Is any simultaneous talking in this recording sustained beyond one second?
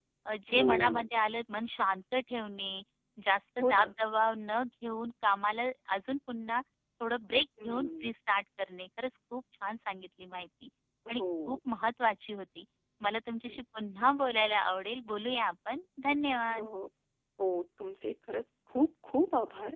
No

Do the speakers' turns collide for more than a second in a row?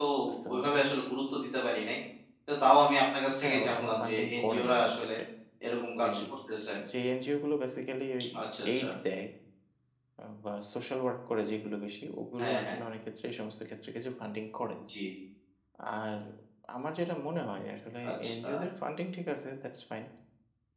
Yes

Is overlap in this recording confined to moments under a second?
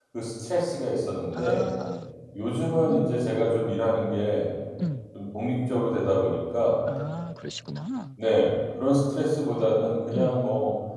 Yes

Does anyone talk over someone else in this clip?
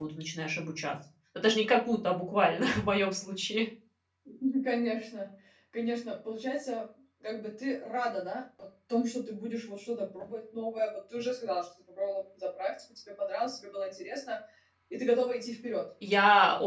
No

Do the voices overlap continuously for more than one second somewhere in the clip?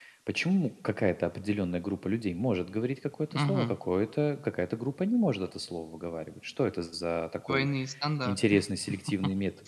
No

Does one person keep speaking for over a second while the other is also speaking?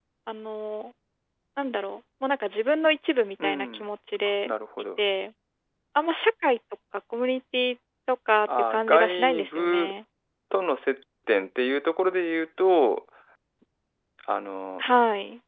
Yes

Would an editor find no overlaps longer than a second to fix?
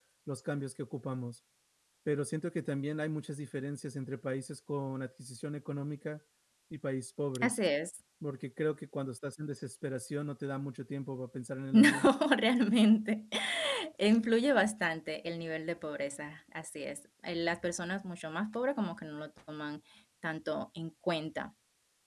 Yes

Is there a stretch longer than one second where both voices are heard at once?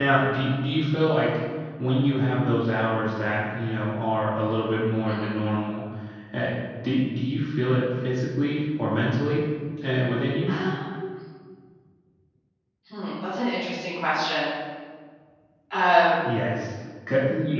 No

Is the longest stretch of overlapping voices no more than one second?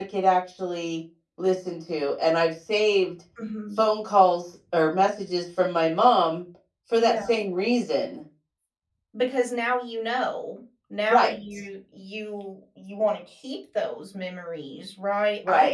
Yes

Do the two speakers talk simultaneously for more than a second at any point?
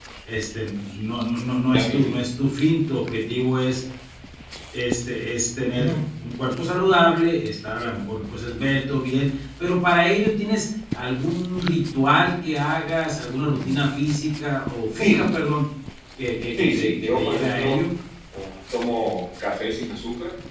Yes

